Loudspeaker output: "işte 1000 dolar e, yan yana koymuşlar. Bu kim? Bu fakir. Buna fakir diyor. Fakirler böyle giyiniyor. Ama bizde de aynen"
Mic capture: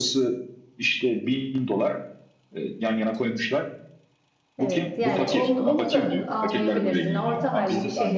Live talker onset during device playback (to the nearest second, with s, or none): 5 s